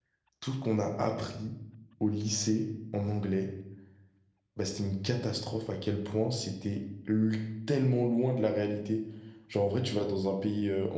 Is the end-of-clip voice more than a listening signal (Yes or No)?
No